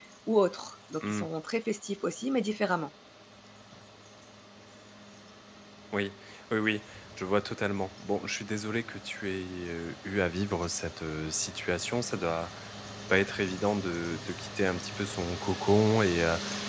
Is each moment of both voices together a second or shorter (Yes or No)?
Yes